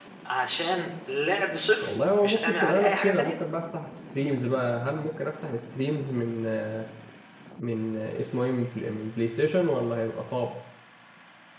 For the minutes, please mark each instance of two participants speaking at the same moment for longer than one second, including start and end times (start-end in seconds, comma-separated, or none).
1.8-3.4